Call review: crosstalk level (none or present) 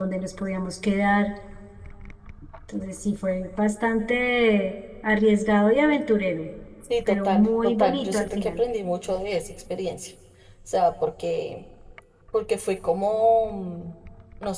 present